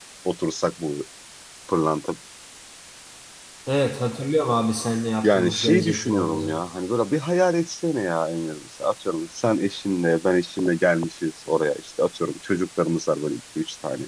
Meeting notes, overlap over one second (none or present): present